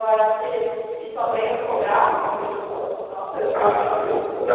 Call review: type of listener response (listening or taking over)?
taking over